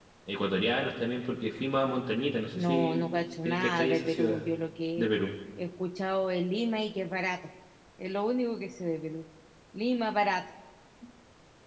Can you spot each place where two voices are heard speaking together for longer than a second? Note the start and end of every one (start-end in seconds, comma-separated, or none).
2.5-4.4